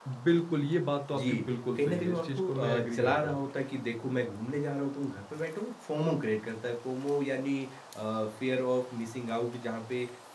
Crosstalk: present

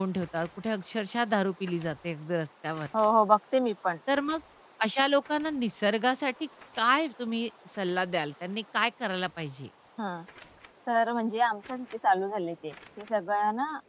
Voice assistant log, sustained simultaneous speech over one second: none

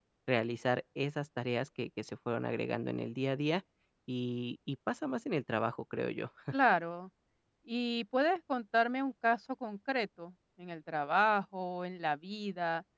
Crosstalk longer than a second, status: none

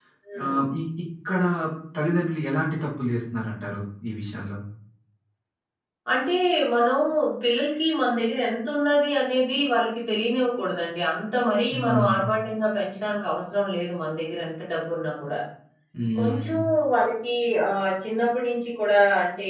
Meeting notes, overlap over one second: none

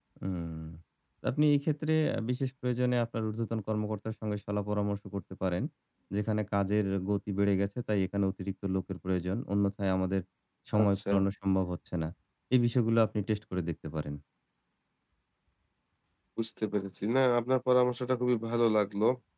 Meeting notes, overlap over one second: none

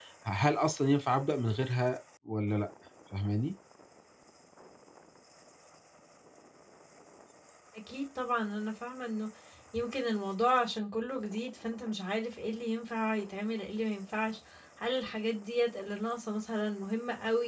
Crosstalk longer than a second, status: none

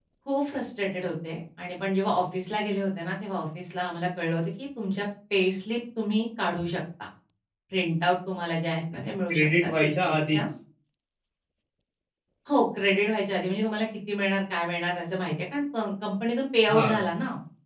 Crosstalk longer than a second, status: present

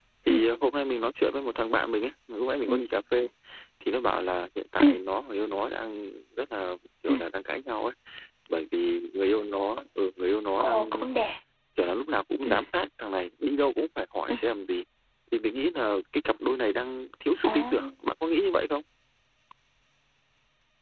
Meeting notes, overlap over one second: none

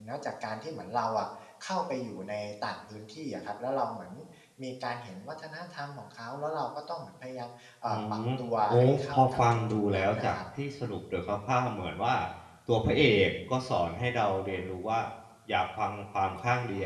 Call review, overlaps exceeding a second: present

